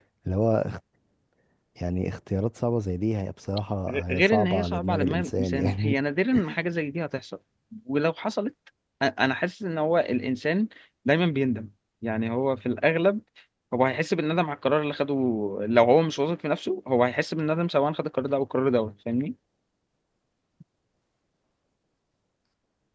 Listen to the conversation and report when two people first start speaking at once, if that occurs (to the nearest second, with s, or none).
4 s